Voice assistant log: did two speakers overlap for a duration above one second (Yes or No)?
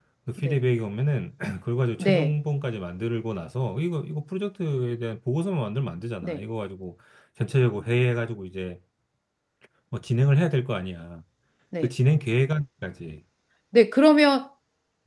No